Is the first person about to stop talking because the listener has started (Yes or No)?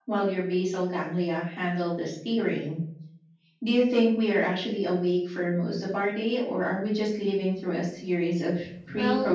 Yes